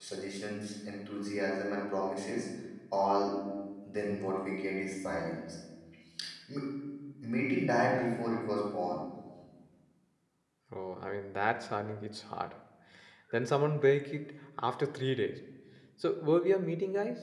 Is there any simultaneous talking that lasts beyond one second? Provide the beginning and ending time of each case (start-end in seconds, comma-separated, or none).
none